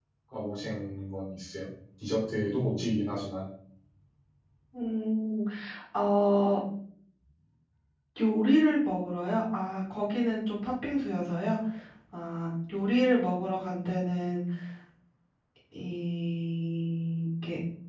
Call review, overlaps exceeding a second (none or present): none